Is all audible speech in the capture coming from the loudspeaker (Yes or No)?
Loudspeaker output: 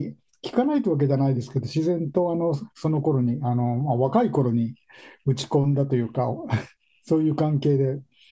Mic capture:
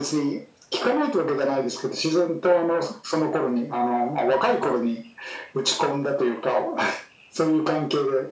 Yes